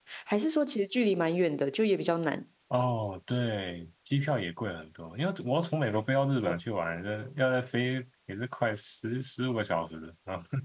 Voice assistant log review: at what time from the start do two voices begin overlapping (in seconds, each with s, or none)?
none